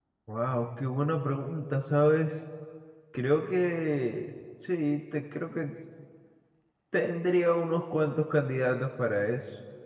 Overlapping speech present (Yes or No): No